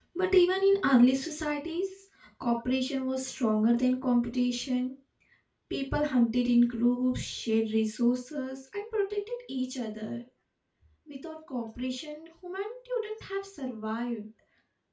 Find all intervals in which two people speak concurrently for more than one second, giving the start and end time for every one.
none

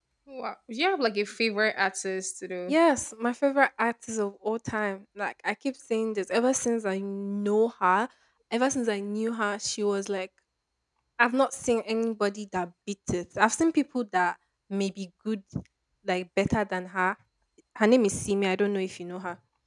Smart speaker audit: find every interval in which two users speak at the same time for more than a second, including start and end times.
none

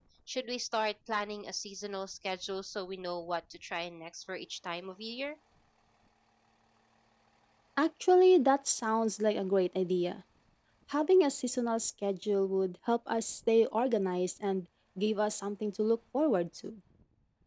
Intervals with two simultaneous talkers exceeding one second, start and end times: none

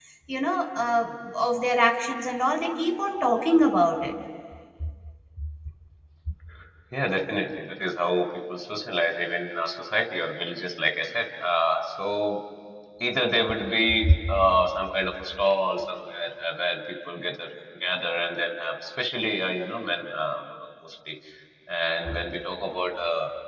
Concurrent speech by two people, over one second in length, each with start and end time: none

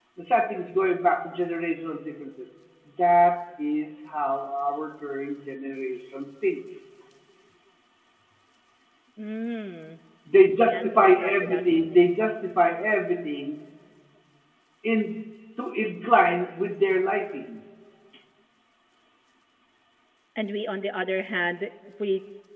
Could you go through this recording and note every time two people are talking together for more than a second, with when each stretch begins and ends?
10.6-12.0

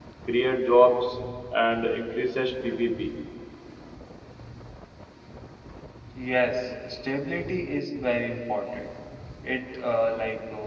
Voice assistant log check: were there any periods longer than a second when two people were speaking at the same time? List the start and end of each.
none

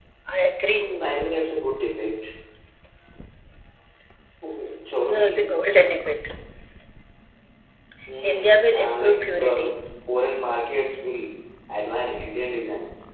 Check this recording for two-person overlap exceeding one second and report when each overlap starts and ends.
8.2-9.7

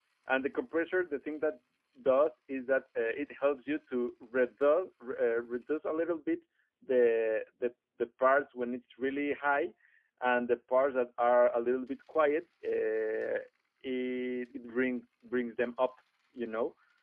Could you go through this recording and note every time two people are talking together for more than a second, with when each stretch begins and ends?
none

